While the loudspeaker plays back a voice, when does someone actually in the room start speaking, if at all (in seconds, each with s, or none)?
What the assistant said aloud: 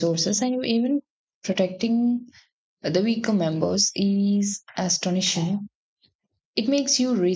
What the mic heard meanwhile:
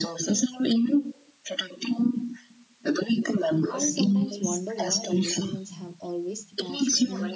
3.7 s